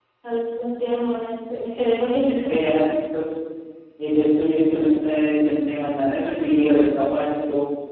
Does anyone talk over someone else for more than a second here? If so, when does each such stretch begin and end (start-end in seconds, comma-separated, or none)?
none